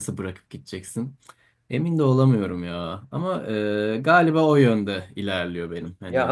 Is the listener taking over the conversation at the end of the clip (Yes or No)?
Yes